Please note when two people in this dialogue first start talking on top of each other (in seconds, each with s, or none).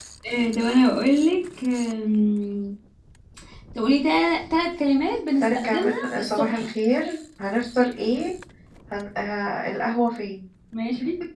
5.4 s